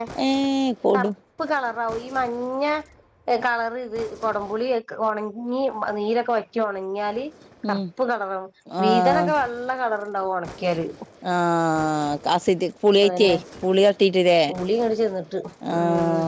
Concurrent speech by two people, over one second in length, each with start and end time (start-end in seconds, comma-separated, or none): none